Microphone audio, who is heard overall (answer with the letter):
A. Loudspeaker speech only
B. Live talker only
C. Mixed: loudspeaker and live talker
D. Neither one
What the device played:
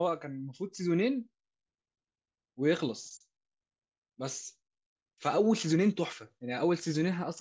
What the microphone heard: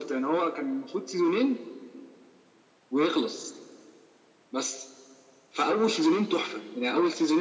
A